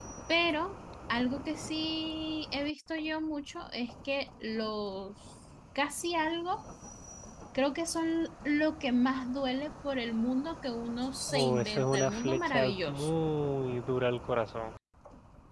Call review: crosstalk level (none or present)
present